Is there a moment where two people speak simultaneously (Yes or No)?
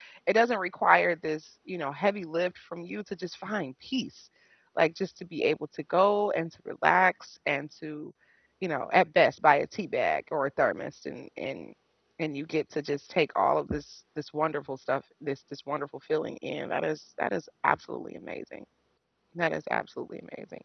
No